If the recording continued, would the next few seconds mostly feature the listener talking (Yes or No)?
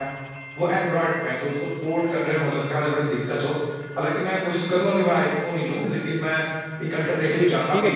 Yes